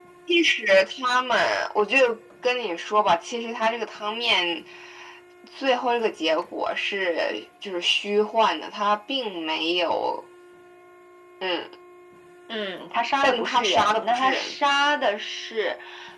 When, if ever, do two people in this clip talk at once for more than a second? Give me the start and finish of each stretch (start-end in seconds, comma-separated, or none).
13.2-14.5